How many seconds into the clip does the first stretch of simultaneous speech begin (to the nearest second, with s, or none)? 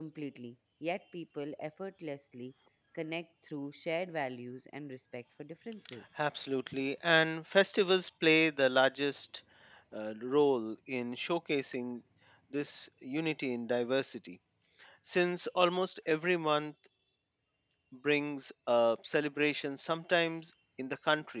none